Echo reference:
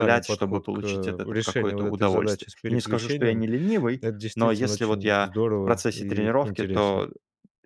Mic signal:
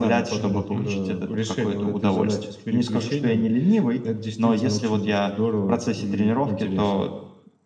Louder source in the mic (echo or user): echo